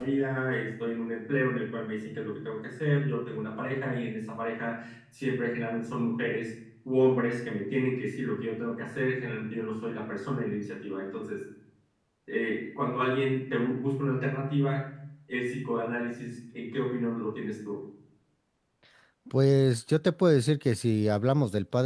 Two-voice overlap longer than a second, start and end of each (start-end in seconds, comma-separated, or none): none